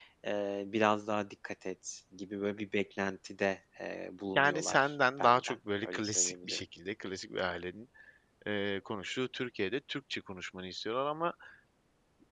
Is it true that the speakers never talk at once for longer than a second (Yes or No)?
No